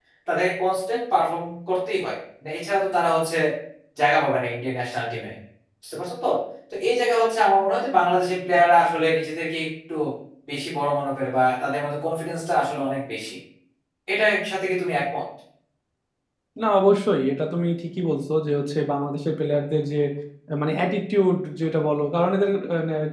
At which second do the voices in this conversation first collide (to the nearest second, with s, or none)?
none